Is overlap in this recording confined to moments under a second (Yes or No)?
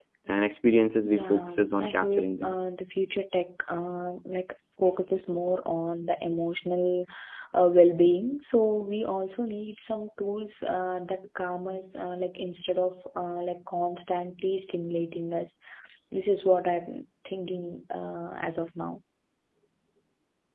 No